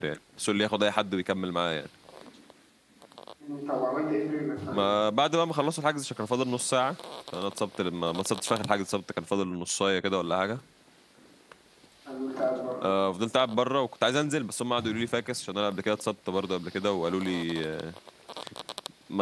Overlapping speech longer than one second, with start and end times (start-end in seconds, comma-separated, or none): none